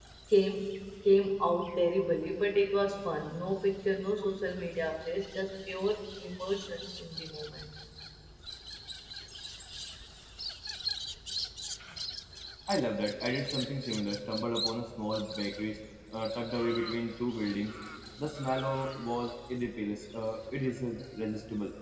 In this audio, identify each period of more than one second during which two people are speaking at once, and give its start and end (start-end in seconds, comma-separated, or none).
none